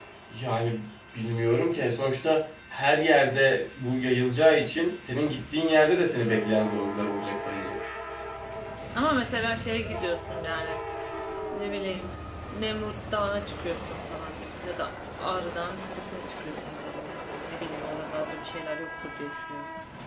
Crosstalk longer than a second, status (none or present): none